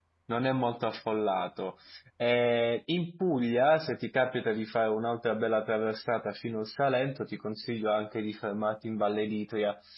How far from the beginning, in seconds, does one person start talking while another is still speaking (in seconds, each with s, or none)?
none